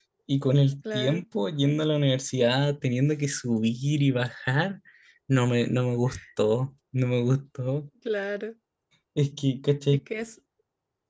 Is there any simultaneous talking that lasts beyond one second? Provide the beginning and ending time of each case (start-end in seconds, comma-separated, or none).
none